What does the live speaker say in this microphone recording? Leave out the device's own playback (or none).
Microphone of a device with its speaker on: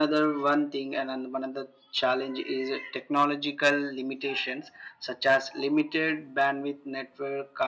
none